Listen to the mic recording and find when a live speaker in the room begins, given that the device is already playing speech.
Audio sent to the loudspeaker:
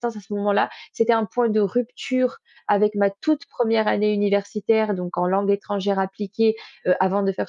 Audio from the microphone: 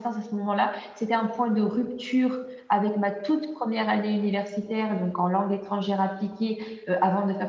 none

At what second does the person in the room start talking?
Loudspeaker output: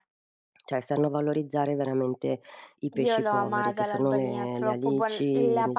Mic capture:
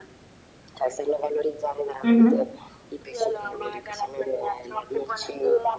2 s

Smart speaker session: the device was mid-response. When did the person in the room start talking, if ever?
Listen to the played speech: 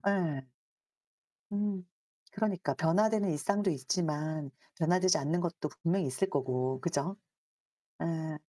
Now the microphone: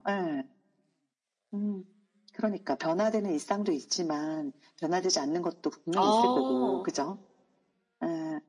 6 s

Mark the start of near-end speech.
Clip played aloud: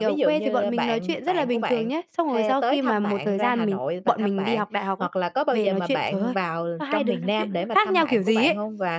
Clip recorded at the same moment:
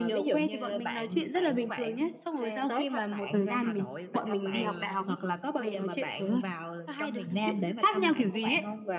4 s

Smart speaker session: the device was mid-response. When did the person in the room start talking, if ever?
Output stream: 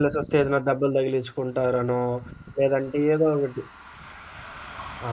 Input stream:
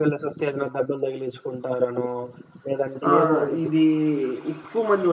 3 s

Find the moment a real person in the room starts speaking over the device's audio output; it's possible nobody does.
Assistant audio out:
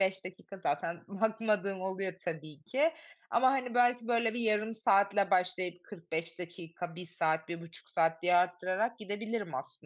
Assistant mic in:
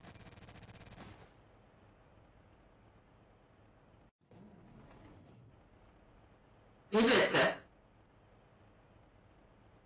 7 s

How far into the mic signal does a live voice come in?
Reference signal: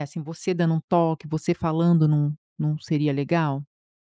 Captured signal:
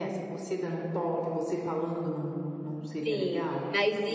3 s

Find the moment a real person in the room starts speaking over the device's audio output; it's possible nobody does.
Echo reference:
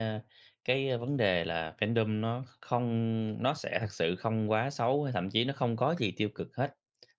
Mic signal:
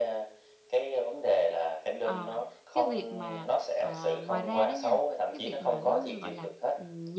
2 s

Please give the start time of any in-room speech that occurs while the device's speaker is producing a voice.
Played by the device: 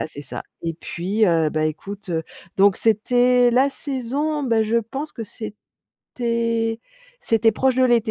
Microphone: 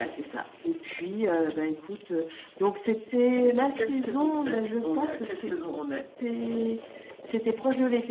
3 s

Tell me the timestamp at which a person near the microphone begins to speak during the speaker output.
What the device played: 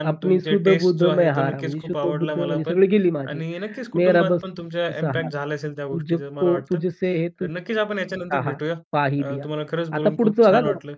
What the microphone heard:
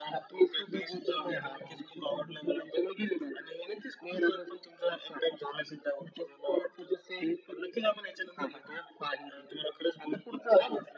none

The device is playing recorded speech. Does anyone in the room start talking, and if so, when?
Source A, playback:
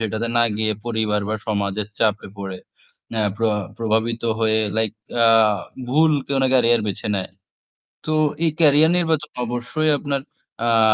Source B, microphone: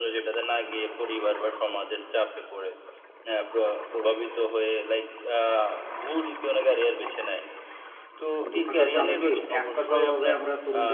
8 s

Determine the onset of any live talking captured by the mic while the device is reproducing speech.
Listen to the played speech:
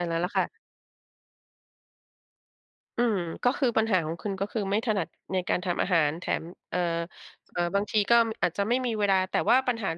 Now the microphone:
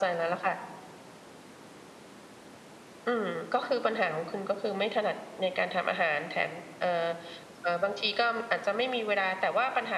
none

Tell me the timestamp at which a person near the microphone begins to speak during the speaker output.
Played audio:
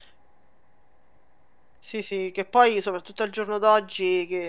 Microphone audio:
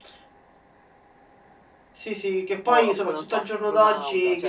3 s

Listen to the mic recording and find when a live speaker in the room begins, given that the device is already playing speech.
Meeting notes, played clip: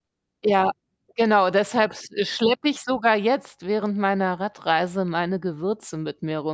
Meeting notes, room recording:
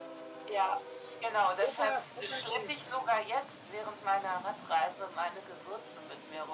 2 s

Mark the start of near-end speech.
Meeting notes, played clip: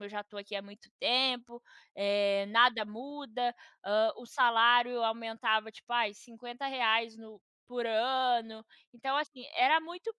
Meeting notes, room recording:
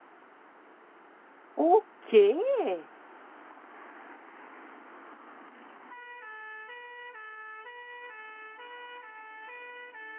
2 s

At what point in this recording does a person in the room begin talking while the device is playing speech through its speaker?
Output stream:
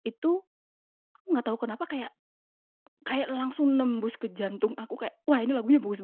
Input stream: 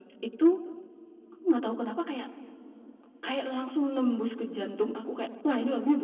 none

